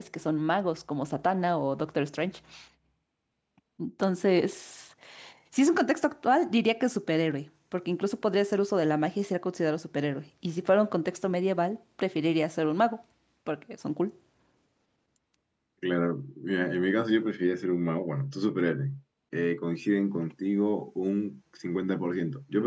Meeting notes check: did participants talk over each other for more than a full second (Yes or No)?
No